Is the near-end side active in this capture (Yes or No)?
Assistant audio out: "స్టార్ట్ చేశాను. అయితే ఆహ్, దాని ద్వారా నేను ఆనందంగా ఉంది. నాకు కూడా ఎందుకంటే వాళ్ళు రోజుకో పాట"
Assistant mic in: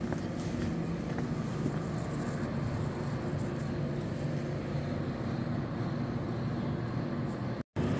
No